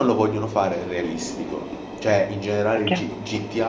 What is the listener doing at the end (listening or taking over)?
listening